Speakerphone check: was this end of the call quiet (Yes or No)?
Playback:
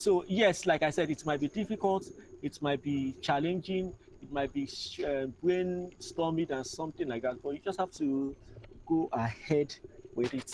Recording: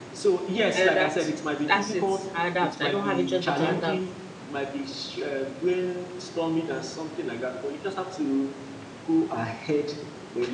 No